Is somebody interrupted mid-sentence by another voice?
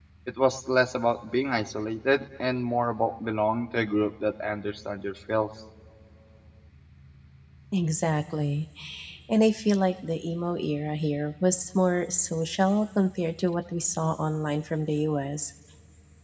No

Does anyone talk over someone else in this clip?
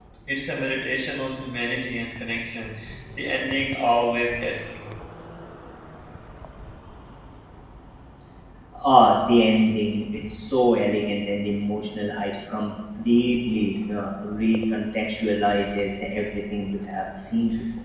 No

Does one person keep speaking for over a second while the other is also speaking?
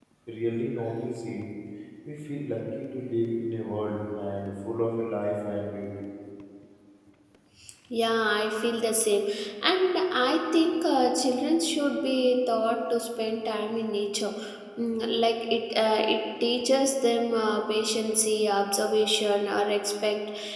No

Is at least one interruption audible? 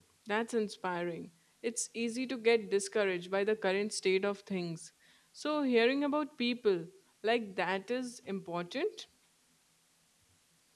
No

